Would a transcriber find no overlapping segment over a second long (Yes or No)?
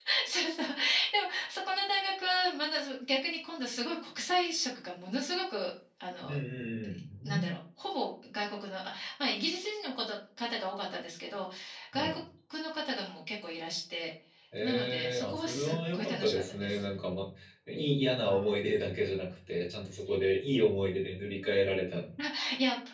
No